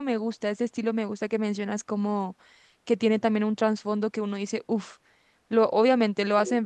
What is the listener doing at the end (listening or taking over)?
listening